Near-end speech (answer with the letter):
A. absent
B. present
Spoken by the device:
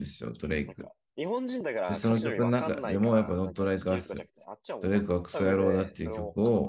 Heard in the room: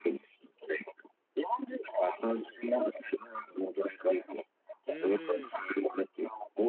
B